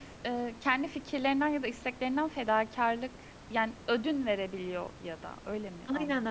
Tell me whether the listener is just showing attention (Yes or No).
No